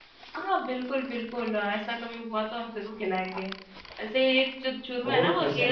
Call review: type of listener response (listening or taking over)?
listening